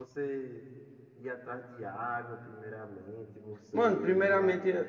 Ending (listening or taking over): taking over